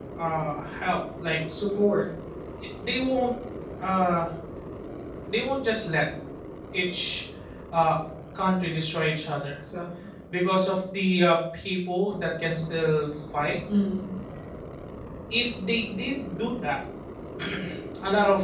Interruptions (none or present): none